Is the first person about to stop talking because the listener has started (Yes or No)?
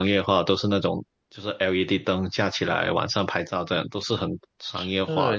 Yes